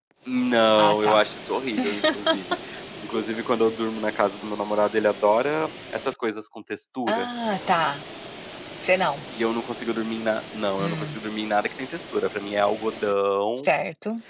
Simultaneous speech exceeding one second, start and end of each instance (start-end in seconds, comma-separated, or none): none